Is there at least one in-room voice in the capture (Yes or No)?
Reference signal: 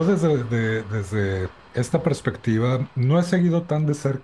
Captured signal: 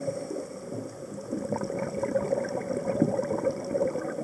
No